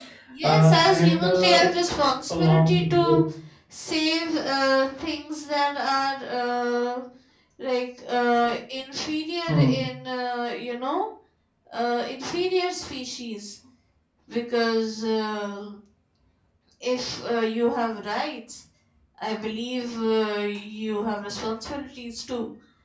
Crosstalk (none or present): present